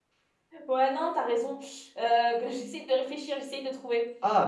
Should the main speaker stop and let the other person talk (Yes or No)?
Yes